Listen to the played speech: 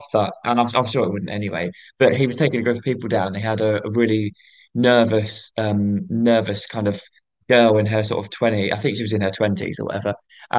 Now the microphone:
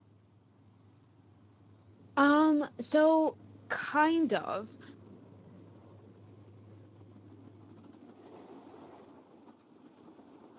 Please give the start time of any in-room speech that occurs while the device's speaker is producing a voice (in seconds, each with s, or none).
2.2 s